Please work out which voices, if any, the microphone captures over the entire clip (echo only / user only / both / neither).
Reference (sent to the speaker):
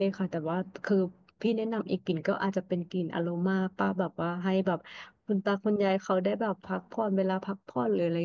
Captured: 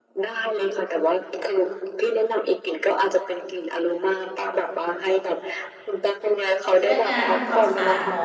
both